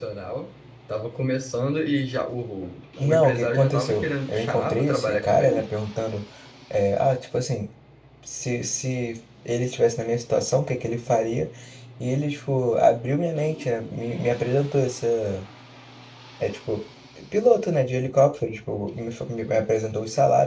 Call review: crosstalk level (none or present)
present